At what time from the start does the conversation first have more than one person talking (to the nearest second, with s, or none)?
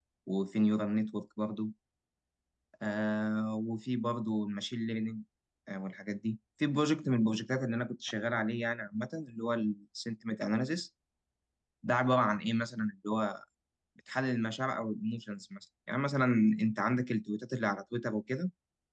none